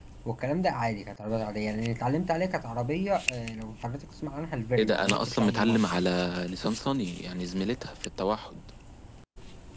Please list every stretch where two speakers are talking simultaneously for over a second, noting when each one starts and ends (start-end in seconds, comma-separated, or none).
4.8-6.1